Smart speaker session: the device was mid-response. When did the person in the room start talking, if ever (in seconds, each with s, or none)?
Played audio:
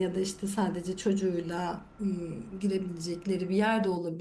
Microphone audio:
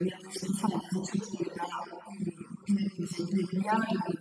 none